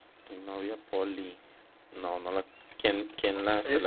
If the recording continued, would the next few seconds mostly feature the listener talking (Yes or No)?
Yes